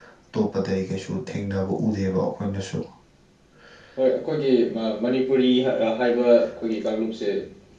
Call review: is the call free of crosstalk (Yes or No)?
Yes